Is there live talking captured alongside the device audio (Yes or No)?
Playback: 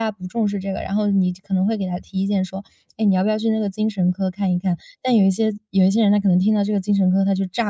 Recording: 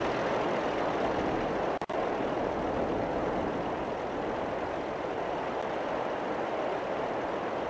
No